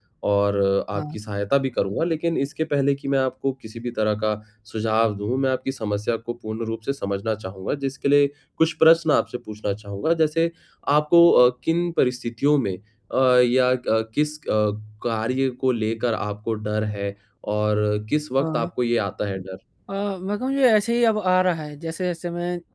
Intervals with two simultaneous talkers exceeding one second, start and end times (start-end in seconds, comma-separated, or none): none